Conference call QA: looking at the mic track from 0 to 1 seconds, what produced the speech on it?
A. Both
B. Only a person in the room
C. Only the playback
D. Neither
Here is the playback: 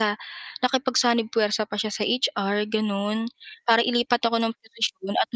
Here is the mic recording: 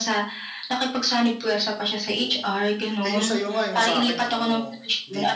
C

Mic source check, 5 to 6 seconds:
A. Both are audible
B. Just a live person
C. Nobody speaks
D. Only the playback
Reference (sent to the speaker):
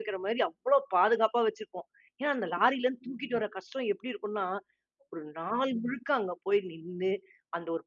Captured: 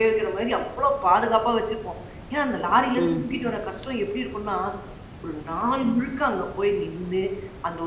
D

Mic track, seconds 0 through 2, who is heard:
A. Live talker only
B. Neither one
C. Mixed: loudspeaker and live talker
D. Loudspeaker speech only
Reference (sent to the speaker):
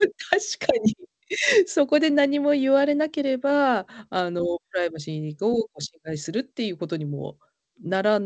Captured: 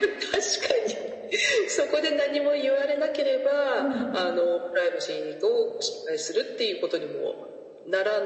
D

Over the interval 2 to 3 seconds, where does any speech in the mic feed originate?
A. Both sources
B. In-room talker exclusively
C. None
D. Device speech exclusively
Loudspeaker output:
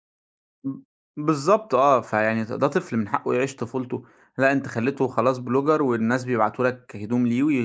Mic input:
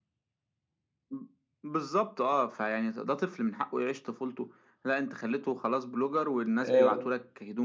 D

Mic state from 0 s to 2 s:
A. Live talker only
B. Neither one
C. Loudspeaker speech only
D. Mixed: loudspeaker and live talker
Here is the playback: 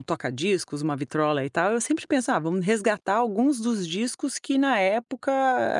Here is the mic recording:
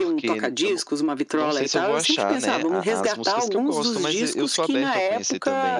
D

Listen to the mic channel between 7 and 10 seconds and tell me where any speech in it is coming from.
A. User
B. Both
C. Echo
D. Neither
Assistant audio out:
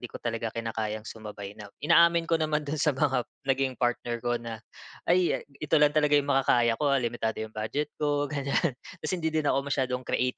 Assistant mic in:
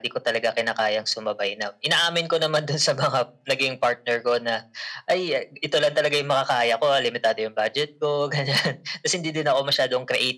C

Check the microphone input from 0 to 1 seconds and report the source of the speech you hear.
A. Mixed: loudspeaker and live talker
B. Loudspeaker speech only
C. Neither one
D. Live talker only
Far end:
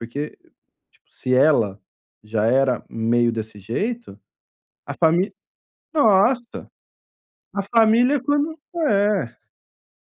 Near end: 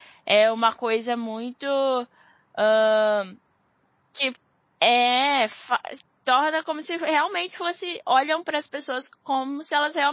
D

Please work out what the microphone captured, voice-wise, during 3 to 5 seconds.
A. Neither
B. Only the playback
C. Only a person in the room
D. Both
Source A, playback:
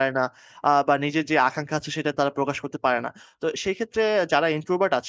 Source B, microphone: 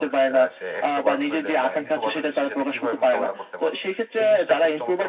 D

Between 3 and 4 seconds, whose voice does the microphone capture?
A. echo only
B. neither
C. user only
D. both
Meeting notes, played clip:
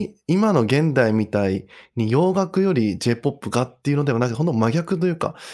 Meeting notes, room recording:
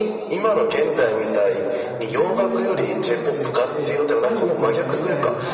D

